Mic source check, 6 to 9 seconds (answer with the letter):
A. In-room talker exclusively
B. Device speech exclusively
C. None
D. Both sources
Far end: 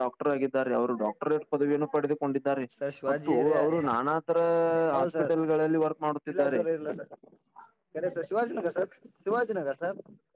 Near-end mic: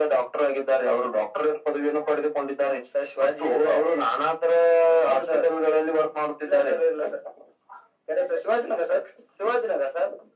B